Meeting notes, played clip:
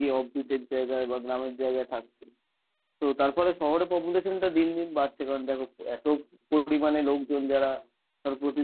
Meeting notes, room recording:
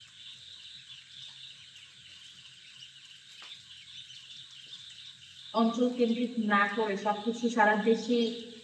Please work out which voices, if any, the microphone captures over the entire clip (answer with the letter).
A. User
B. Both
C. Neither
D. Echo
A